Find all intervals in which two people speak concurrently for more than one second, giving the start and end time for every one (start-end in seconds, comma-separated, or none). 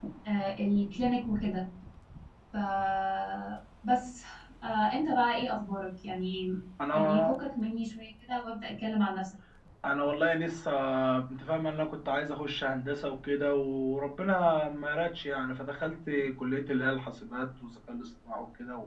none